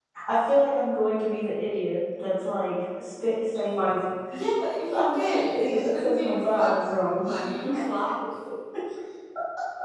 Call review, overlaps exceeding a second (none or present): present